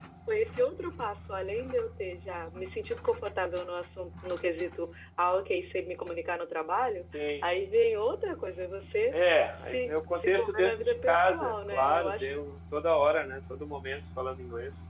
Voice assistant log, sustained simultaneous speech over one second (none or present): present